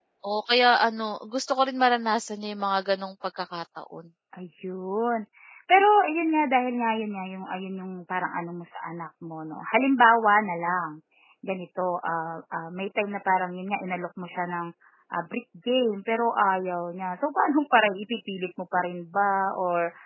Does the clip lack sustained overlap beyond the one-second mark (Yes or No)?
Yes